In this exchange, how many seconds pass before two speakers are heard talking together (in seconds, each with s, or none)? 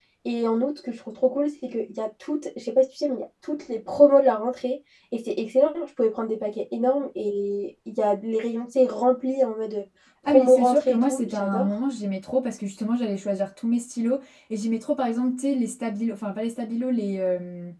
10.2 s